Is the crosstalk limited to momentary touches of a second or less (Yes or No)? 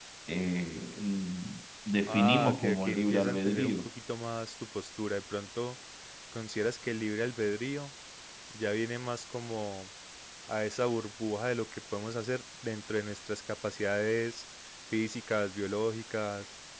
No